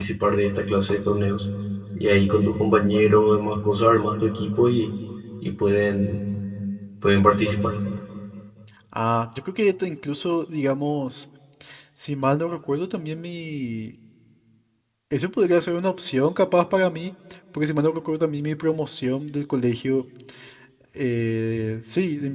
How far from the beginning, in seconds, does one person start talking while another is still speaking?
none

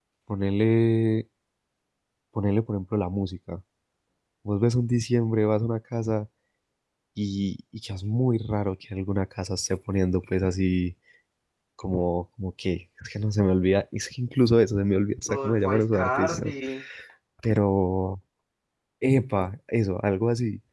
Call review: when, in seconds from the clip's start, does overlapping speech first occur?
15.3 s

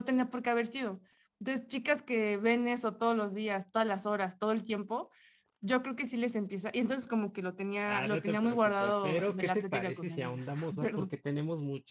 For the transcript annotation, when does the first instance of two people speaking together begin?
7.8 s

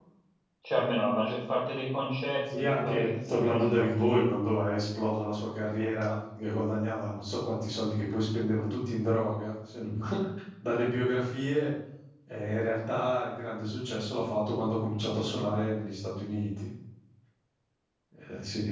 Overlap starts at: 2.5 s

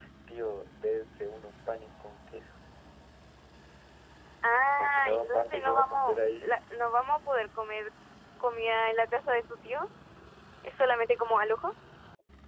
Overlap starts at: 4.8 s

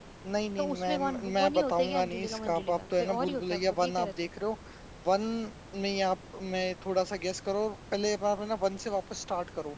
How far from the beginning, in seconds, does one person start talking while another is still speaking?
0.6 s

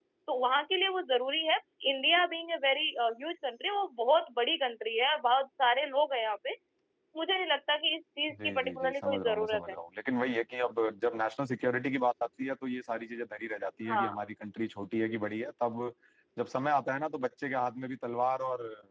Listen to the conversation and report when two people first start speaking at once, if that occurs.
8.4 s

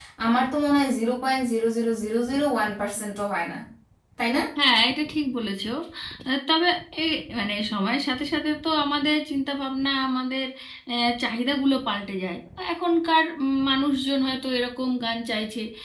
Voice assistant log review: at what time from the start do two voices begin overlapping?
none

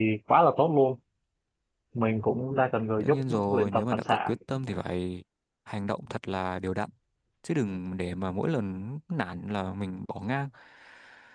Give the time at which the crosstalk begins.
3.0 s

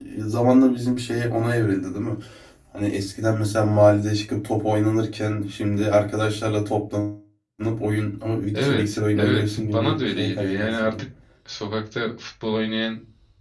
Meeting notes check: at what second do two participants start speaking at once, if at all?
8.5 s

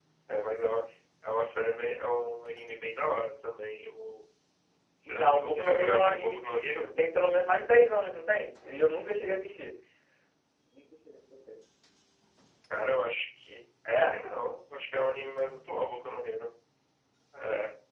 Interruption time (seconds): 5.0 s

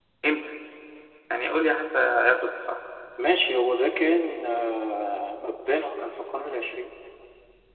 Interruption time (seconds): none

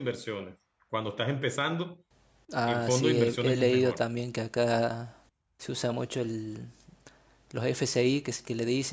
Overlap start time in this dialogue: 2.7 s

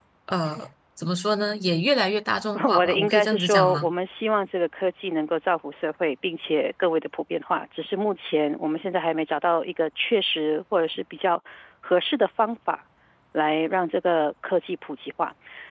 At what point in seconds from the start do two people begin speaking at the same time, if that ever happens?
2.7 s

